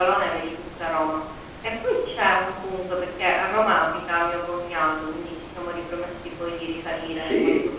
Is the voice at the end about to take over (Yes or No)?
No